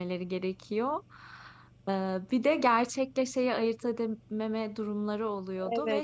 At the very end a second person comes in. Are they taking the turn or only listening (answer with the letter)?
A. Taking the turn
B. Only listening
A